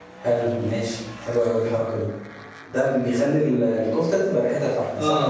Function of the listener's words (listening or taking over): taking over